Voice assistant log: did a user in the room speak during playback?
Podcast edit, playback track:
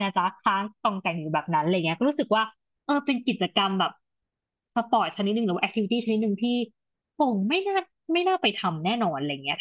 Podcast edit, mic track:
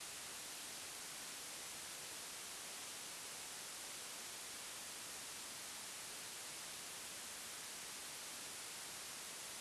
No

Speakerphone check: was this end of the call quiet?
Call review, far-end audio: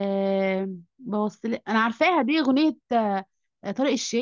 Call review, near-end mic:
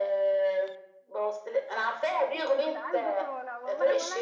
No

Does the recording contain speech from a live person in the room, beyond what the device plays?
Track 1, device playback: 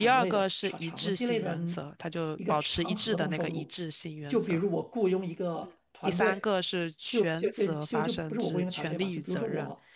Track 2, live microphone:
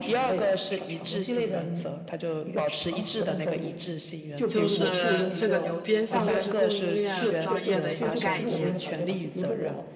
Yes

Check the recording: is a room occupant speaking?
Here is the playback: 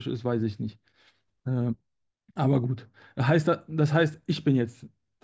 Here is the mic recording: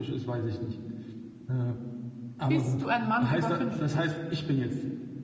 Yes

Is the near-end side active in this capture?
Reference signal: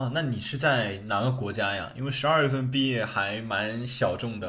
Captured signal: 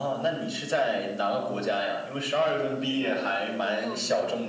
Yes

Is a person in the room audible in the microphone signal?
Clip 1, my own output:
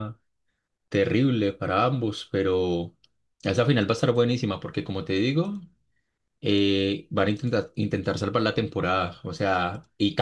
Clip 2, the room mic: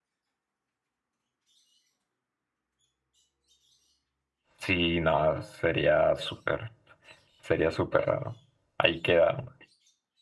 Yes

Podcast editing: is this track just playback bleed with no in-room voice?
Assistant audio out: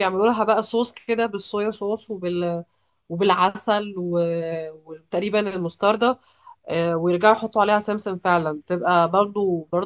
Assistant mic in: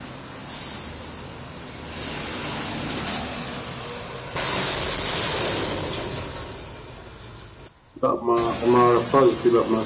No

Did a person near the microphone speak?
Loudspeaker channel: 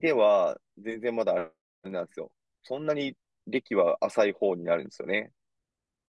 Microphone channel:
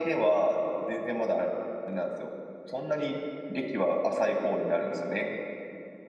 No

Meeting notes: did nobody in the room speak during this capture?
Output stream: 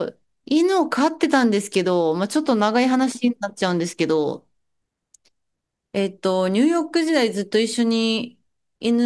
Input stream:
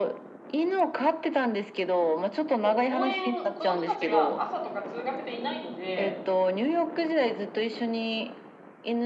No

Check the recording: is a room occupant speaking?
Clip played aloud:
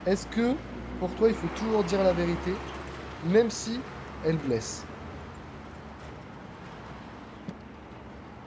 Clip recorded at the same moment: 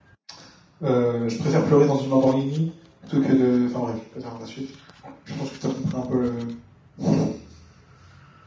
Yes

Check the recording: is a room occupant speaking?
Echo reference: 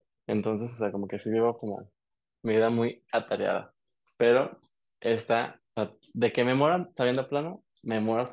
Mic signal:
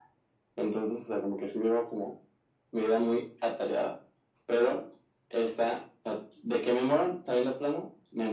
No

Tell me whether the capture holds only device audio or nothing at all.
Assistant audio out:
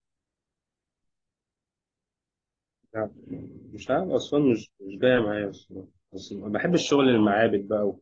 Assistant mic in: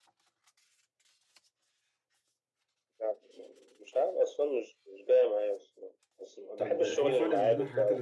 No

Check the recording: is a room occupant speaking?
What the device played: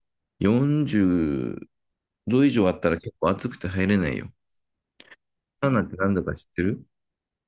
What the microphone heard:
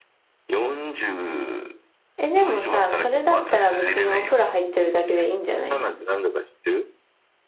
Yes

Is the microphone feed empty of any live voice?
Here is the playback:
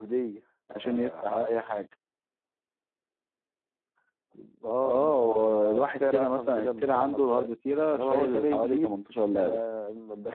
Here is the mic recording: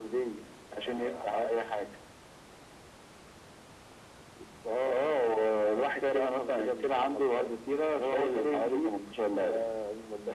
Yes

